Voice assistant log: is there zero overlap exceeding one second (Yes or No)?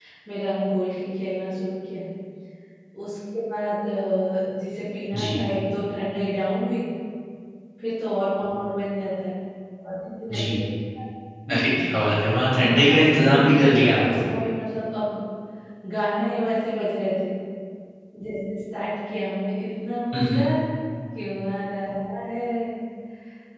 No